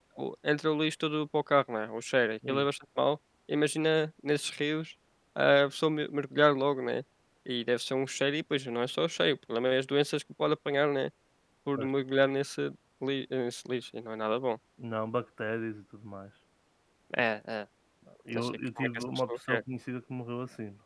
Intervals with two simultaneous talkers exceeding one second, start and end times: 18.3-19.6

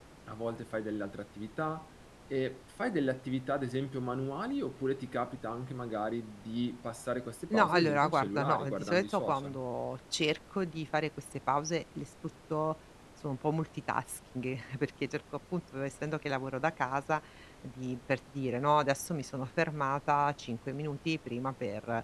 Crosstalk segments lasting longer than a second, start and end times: 7.5-9.6

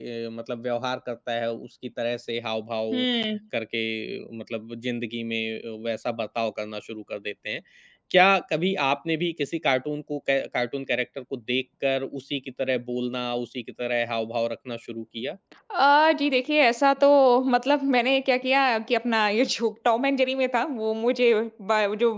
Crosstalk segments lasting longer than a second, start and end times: none

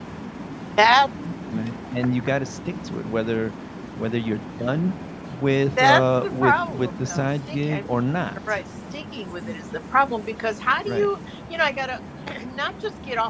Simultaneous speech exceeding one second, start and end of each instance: 5.8-7.8

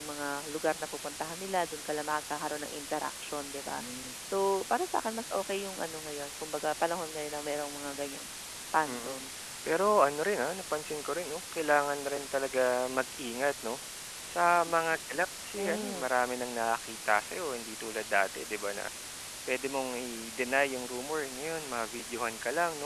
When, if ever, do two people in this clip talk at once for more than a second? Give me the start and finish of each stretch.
none

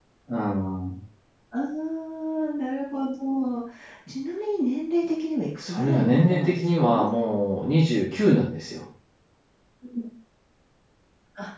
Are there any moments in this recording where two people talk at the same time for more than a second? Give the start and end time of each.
5.6-7.0

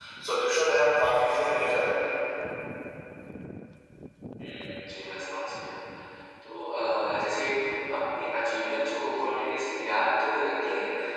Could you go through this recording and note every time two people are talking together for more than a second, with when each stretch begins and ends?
none

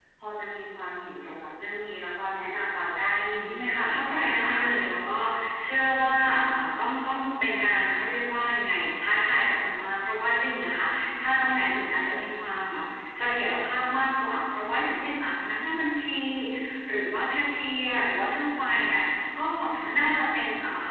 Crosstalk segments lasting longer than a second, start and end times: 3.5-4.8

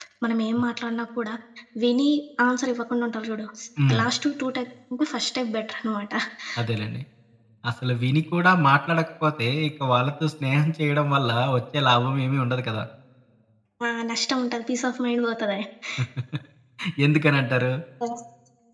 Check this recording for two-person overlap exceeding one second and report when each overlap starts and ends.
none

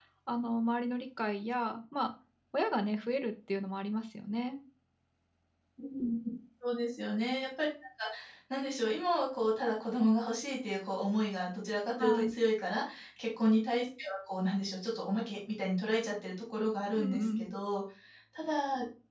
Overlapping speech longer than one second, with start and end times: none

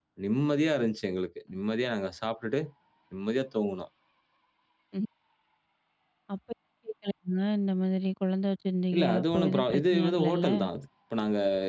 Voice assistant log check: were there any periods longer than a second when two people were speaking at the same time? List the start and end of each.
9.0-10.5

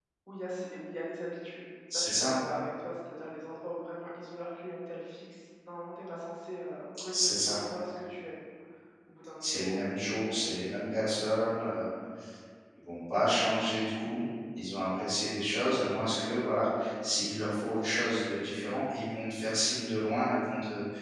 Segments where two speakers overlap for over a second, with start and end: none

